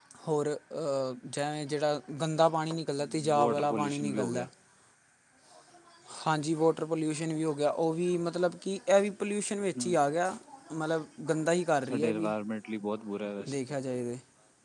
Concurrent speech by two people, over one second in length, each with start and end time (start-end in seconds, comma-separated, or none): 3.0-4.5